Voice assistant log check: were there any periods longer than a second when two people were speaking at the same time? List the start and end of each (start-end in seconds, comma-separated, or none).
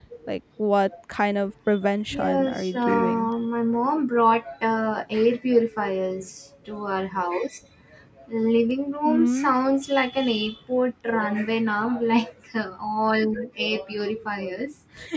2.1-3.3